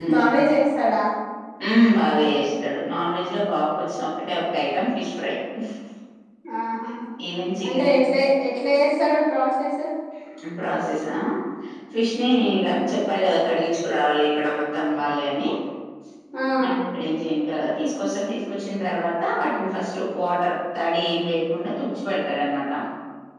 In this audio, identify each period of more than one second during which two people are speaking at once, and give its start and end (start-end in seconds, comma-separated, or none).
none